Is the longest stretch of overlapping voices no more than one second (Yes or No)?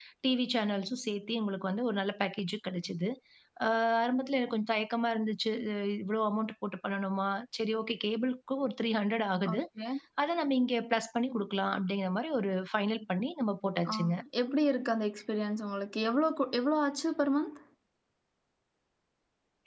Yes